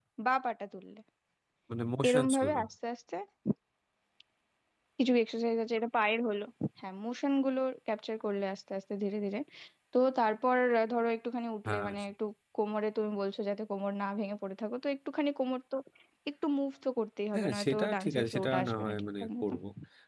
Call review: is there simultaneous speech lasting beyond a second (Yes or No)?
Yes